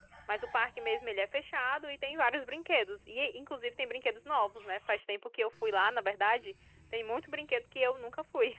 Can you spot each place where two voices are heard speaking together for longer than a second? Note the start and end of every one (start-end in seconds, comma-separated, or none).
none